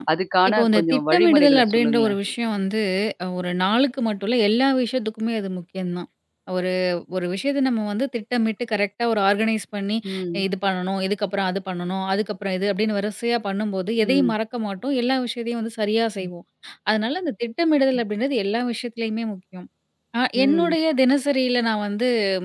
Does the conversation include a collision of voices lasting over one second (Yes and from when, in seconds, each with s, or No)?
Yes, from 0.5 s